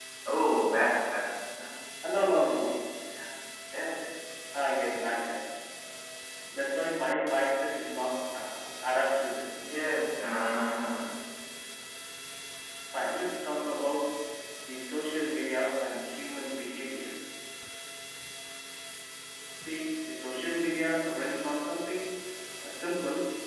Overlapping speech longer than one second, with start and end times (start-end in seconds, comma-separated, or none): none